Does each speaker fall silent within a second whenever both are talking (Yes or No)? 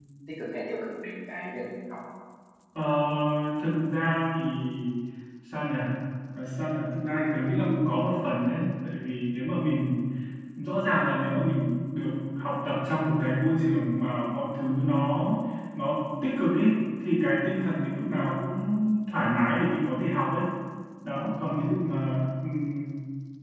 Yes